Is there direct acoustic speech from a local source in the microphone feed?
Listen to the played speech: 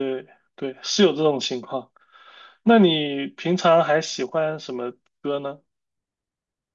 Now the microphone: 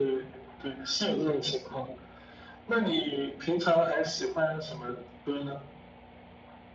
No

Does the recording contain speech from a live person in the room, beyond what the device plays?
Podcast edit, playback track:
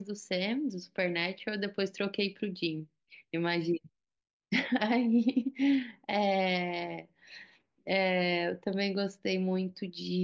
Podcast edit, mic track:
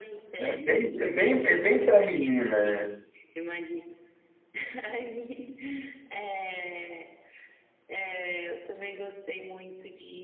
Yes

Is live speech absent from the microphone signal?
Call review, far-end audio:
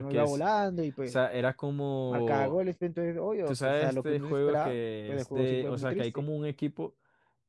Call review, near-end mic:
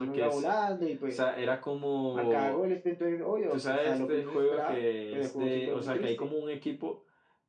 Yes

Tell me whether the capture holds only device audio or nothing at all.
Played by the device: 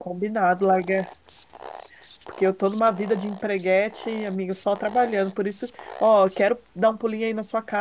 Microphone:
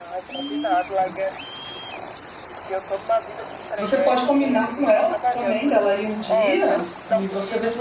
No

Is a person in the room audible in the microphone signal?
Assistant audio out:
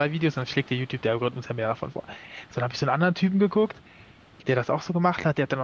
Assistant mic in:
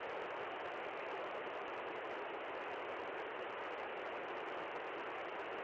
No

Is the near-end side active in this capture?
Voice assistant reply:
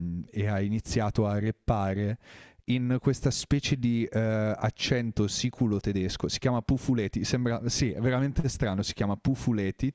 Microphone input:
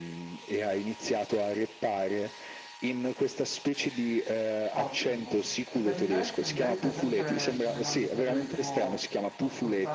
Yes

